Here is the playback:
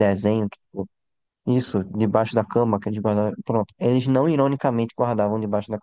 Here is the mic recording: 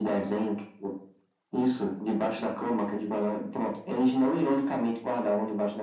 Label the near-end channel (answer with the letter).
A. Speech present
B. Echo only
B